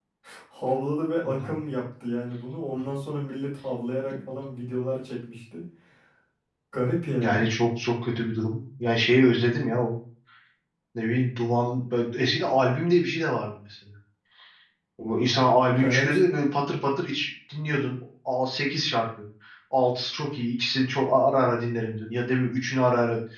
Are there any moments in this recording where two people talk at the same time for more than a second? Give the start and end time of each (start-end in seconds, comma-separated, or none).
none